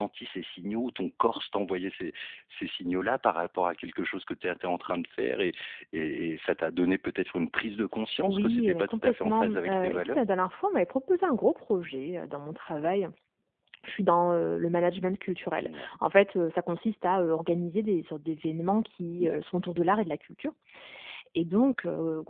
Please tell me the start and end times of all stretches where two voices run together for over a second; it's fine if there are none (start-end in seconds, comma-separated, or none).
8.3-10.2